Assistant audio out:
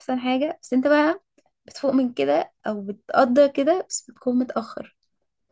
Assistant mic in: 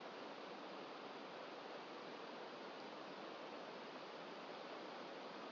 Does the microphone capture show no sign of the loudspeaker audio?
Yes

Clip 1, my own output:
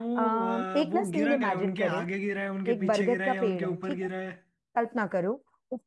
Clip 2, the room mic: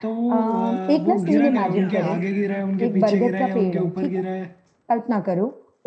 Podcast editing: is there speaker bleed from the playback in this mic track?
Yes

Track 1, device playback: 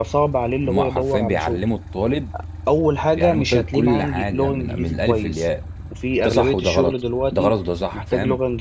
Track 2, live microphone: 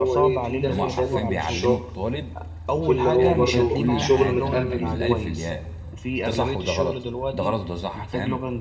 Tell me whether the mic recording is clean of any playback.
No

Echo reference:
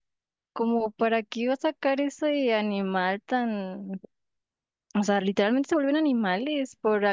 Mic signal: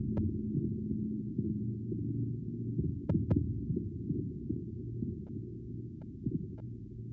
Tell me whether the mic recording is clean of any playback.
Yes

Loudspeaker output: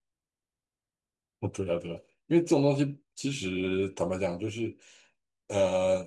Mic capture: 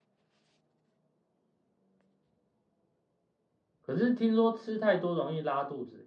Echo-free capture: Yes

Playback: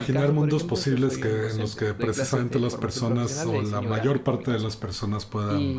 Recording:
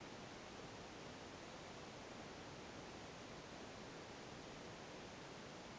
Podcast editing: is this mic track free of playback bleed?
Yes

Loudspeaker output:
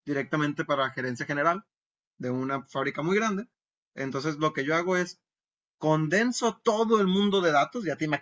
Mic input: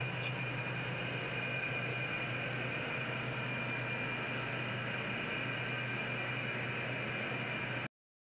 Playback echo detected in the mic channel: No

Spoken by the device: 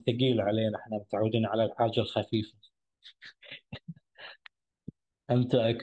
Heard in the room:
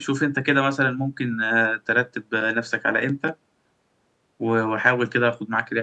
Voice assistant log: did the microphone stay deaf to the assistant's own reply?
Yes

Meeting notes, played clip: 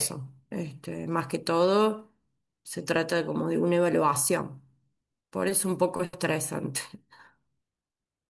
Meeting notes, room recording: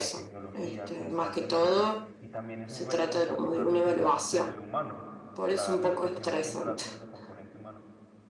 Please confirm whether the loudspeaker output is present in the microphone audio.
Yes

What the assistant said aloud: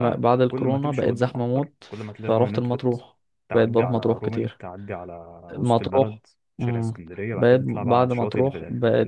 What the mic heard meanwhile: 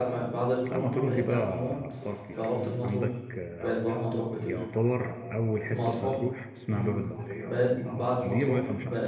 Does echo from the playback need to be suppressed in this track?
Yes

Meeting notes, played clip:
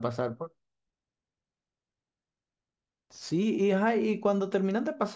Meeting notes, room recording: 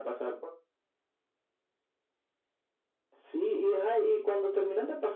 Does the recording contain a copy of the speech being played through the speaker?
Yes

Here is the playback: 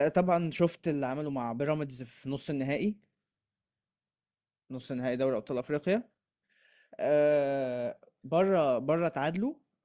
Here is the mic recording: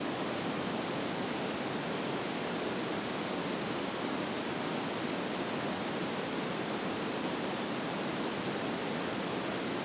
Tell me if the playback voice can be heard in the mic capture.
No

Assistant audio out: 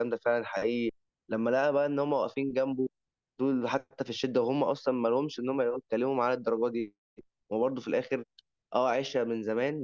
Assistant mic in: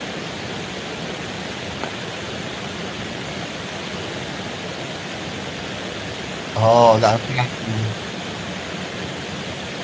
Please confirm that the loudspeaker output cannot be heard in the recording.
Yes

